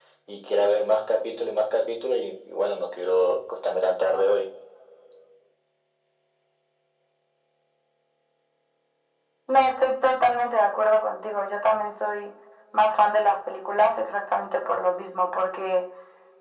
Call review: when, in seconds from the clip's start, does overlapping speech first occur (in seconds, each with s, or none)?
none